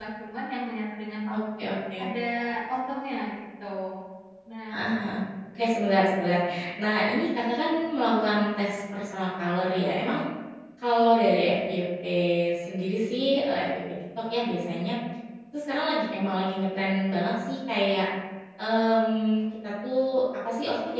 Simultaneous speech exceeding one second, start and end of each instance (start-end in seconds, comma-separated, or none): none